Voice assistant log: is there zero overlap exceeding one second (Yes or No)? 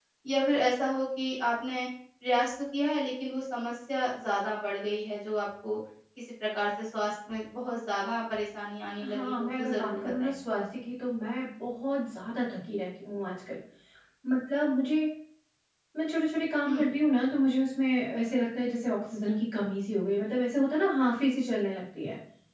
No